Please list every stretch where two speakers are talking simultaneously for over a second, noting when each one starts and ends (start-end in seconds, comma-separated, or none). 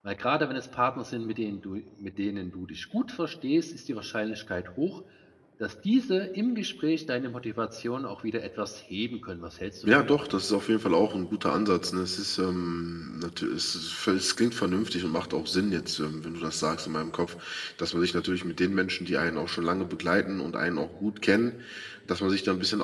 none